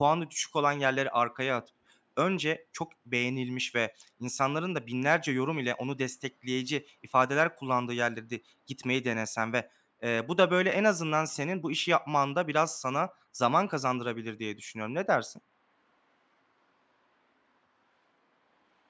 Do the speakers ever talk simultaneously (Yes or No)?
No